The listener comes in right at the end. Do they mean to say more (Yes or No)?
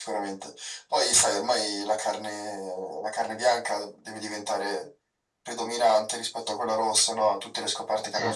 Yes